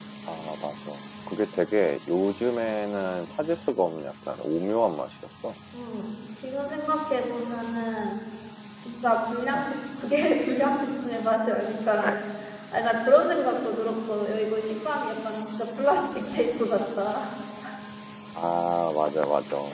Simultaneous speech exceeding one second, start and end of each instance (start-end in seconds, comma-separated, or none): none